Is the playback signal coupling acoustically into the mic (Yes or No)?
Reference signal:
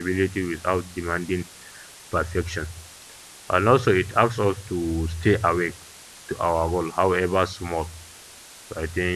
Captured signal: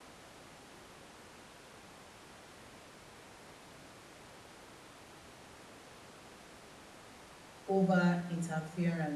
No